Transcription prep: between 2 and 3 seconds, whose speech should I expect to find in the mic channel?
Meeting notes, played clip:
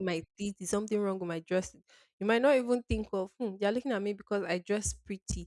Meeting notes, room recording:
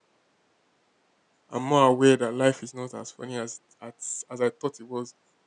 user only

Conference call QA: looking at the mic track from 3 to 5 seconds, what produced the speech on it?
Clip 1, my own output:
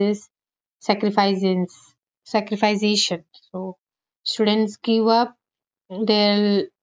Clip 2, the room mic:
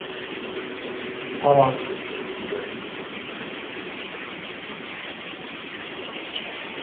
neither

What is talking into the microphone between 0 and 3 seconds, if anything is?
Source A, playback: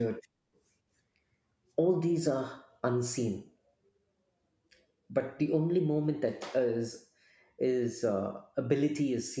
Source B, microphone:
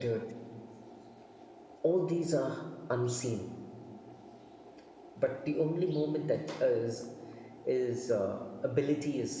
echo only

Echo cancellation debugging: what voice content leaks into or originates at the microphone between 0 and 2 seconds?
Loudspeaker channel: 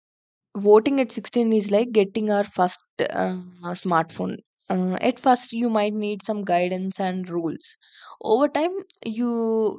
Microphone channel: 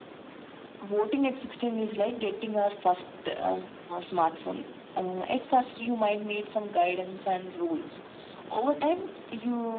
echo only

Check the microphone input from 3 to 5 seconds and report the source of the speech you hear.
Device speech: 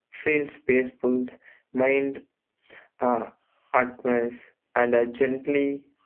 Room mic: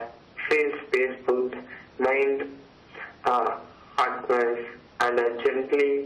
echo only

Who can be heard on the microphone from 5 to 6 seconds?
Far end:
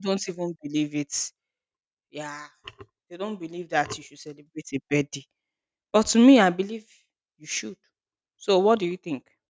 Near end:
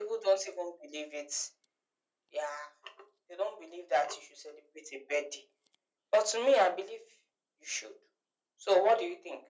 echo only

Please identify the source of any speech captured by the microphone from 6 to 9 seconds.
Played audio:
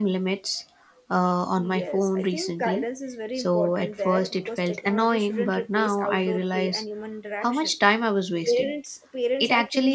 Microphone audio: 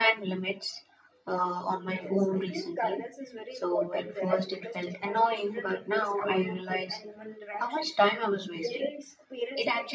echo only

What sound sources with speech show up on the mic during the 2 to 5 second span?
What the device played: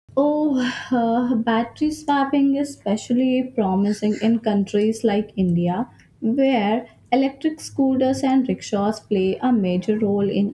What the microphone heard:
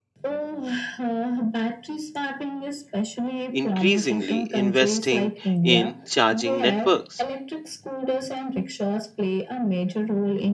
both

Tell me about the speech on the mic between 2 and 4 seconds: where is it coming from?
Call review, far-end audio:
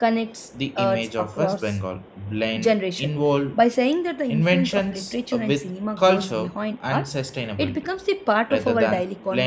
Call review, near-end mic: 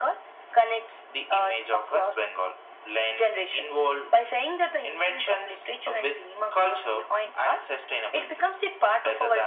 echo only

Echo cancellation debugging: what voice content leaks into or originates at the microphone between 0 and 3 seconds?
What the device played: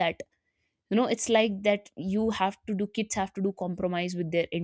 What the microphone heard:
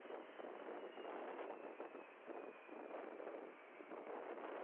neither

